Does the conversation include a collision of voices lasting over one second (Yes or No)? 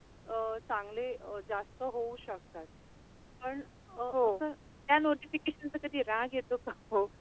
No